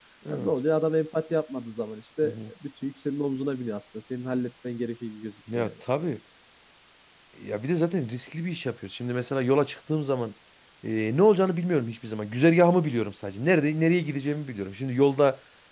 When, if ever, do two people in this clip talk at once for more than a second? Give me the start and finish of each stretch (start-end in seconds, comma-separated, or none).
none